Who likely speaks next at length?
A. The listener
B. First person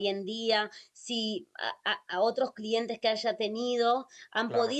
B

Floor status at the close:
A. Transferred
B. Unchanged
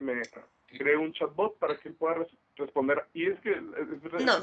A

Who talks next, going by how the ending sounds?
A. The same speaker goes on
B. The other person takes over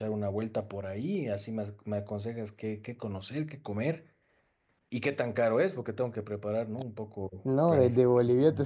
B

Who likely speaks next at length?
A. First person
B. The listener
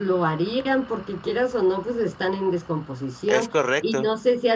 A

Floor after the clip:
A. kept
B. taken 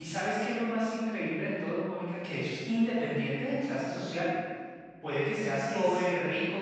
A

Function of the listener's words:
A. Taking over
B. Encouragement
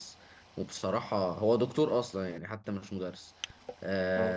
B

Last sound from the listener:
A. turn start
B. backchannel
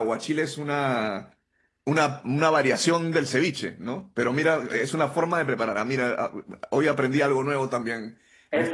A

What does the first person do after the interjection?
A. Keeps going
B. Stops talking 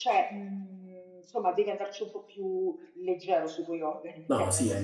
B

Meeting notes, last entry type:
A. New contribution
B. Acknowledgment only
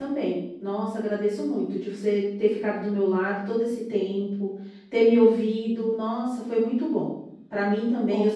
B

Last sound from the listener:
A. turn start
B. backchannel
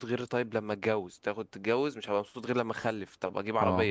B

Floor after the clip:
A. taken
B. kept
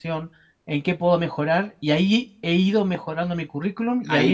A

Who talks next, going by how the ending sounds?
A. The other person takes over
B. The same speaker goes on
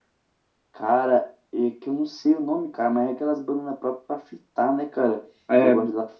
B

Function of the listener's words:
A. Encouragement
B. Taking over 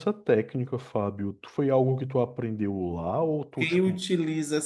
B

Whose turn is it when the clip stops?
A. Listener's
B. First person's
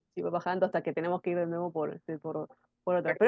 B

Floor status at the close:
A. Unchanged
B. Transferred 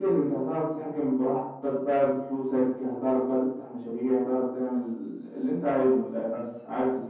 A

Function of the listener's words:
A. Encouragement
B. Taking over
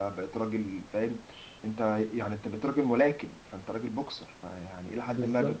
A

